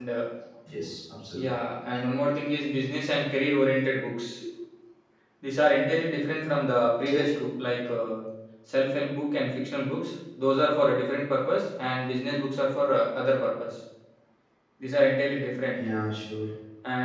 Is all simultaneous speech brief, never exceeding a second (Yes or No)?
Yes